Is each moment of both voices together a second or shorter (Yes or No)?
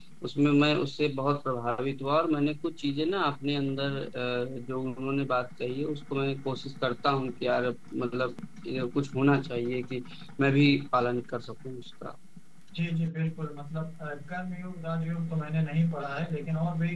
Yes